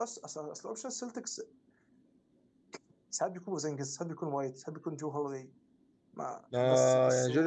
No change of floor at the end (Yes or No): No